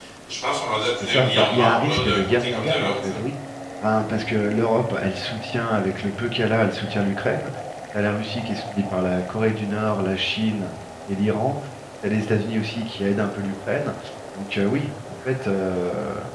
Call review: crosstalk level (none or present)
present